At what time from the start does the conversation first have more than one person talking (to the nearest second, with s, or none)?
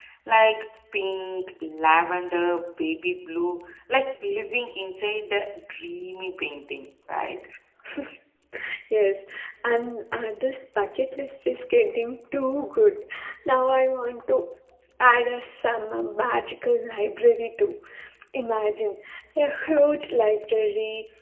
none